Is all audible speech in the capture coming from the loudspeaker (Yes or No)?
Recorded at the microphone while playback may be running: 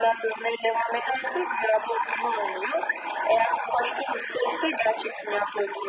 Yes